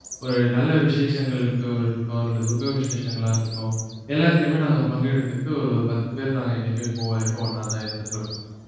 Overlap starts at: none

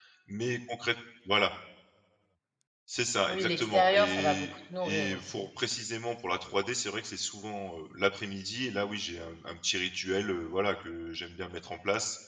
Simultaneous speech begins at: 3 s

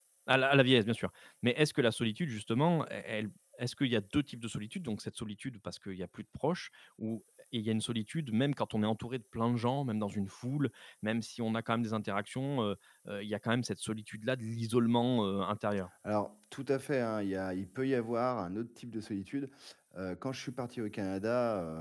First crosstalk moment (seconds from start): none

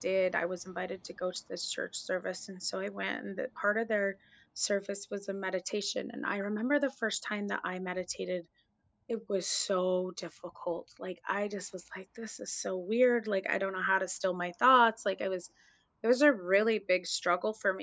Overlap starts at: none

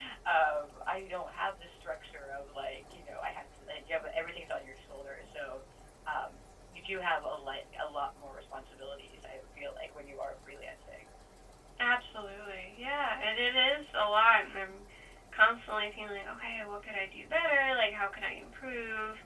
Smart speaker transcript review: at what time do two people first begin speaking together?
none

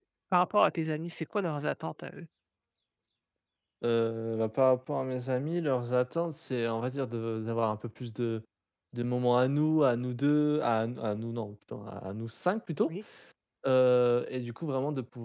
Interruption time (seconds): none

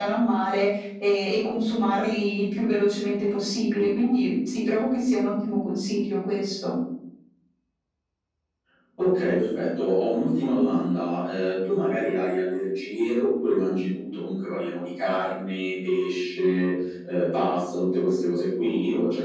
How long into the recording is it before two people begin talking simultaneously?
none

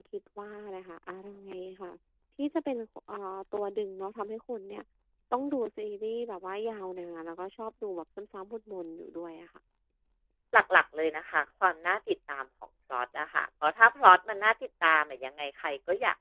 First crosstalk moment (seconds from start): none

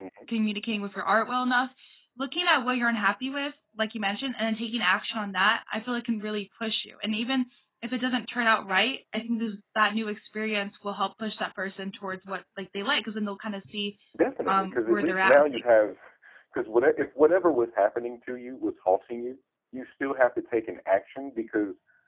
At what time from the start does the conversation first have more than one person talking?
14 s

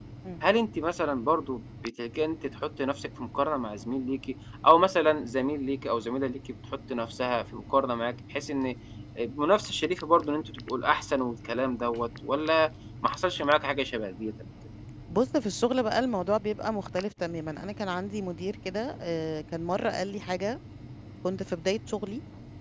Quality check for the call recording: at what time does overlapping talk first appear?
none

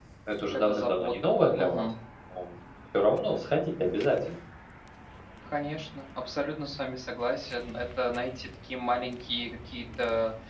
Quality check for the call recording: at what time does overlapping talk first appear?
1 s

